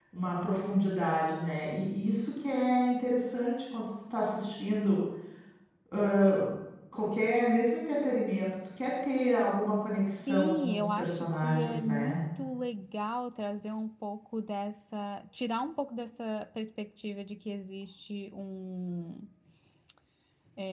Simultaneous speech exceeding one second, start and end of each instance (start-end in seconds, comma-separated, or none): 10.3-12.2